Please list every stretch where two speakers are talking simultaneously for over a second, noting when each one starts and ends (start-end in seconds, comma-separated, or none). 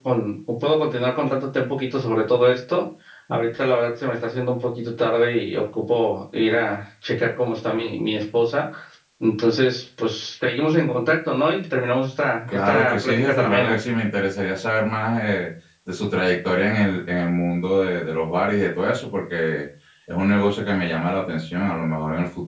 12.5-13.7